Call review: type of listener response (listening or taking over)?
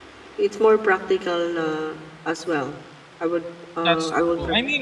taking over